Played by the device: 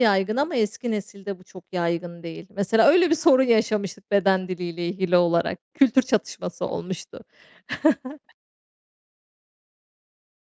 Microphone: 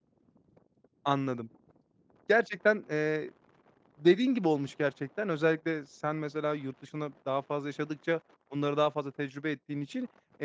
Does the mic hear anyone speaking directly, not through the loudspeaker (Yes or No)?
Yes